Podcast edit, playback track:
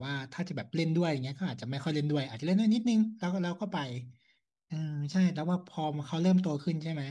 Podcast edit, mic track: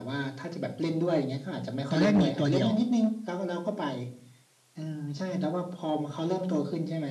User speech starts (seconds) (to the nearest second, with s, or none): 2 s